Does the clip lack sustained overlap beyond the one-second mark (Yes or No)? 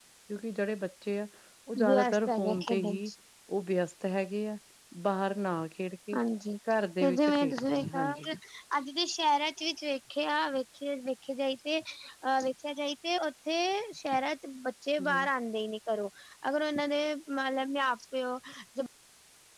No